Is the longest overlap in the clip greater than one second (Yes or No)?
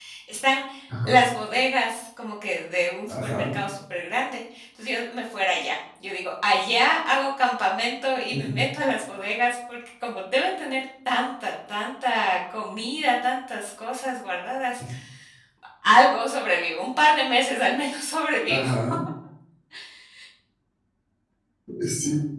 No